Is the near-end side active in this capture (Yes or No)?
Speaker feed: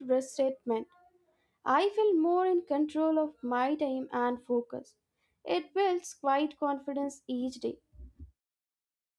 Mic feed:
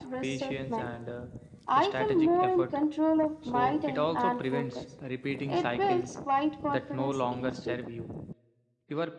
Yes